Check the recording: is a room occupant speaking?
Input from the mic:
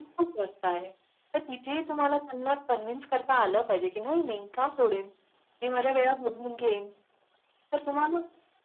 No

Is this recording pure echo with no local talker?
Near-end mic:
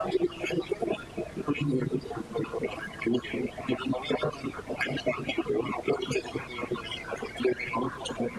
Yes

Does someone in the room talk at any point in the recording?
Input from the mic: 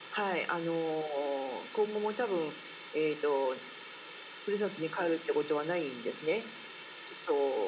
No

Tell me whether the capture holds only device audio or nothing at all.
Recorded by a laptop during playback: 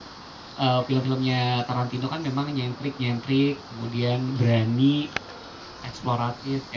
No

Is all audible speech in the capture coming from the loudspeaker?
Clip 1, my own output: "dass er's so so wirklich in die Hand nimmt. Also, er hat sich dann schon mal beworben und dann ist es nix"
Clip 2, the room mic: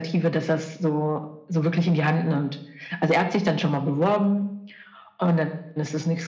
Yes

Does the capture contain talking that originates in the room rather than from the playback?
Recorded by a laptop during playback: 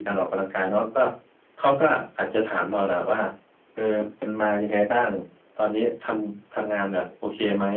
No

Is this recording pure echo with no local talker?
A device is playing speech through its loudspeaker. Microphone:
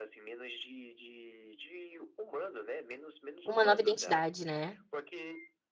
No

